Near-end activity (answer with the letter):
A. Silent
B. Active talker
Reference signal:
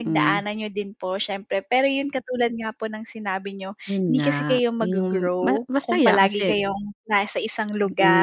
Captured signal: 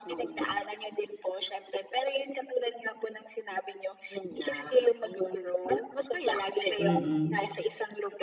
B